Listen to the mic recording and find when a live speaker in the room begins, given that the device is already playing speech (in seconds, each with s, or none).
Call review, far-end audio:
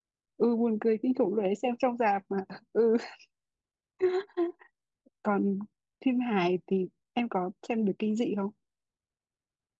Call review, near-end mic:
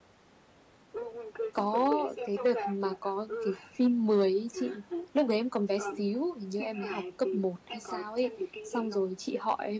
1.5 s